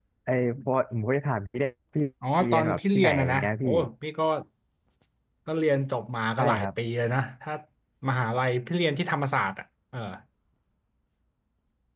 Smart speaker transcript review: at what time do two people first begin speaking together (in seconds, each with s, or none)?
2.4 s